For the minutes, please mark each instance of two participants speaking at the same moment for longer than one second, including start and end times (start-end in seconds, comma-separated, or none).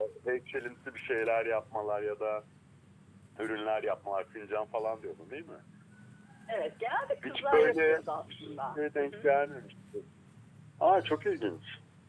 7.2-9.3